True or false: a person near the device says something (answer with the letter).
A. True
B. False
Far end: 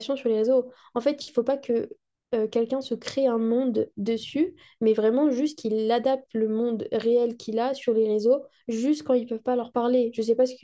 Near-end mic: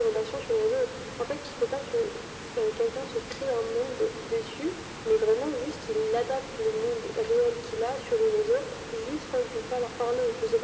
B